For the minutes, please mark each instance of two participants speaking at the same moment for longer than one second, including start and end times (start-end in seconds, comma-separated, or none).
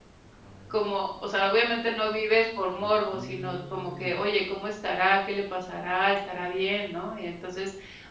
2.8-4.2